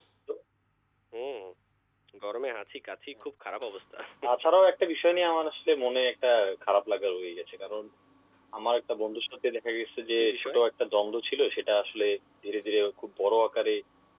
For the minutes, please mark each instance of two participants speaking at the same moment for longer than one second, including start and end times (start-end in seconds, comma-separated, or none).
none